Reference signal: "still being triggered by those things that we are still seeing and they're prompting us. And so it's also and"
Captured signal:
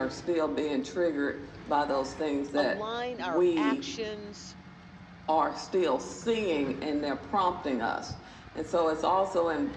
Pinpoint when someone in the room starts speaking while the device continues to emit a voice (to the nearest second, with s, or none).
3 s